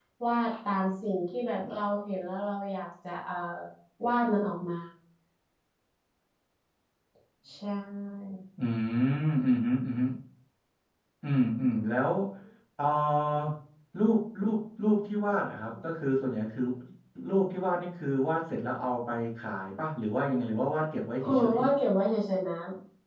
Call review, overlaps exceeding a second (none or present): none